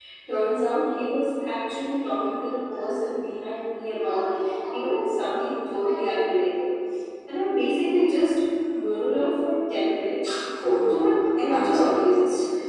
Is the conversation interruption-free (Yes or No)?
No